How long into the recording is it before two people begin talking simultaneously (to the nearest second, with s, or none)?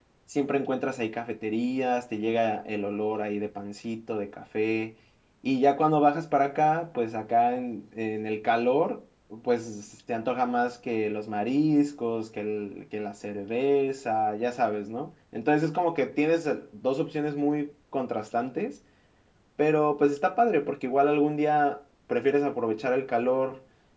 none